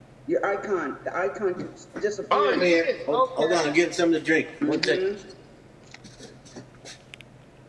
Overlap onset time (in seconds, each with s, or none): 2.3 s